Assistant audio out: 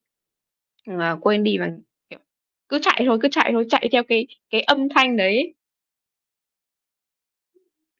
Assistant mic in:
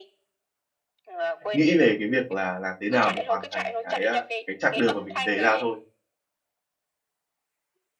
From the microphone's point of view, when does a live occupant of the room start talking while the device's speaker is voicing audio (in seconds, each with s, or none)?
1.5 s